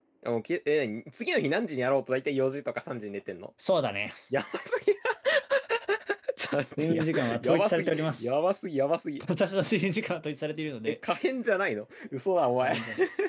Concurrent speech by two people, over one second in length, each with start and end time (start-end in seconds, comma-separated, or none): 6.8-8.3